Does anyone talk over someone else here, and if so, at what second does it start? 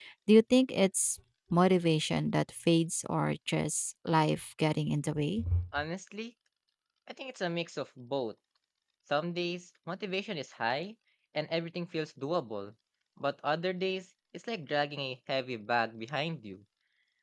none

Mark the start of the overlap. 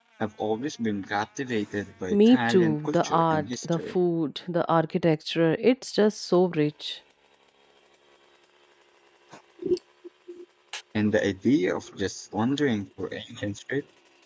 2.1 s

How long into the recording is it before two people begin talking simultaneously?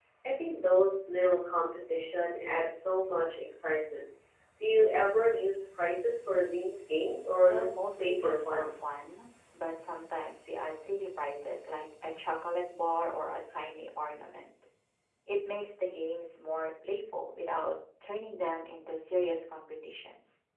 7.5 s

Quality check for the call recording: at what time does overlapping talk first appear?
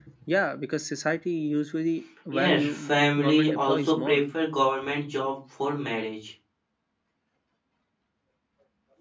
2.3 s

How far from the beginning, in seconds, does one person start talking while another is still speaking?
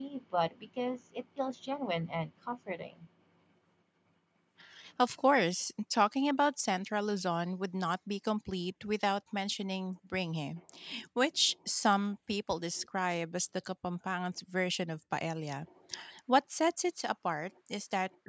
none

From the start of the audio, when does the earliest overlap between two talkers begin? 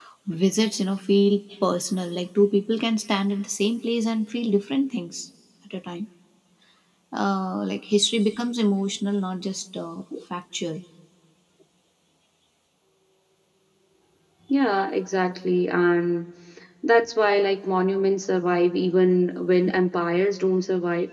none

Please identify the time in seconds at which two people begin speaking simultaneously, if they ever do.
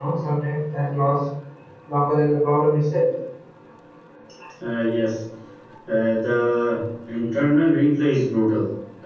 none

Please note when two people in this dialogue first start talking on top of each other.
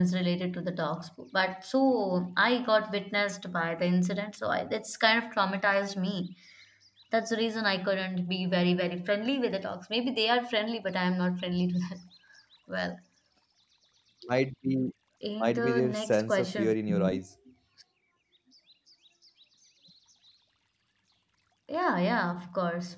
15.4 s

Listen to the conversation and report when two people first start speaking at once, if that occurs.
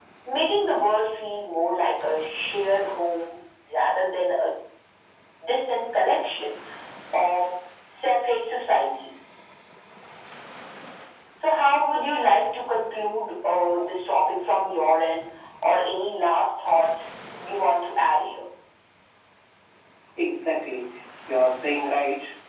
none

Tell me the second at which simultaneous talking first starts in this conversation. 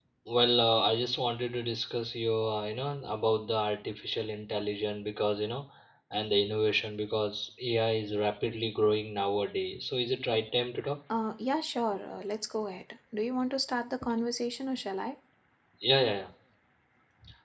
none

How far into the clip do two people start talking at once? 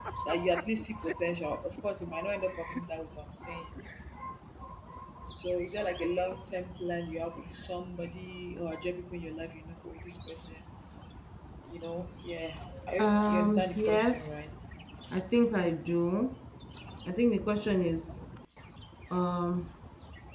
13.0 s

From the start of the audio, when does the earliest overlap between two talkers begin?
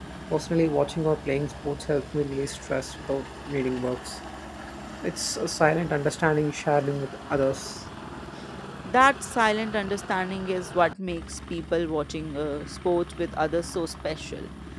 none

